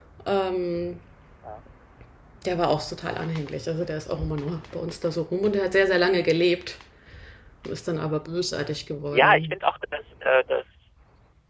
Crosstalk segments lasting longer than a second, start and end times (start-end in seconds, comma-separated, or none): none